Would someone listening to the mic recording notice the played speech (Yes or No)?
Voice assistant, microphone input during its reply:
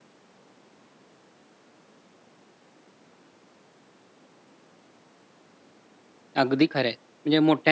No